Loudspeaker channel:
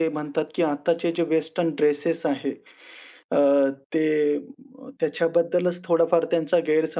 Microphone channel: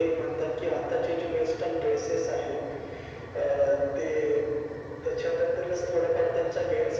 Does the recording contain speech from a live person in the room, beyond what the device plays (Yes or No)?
No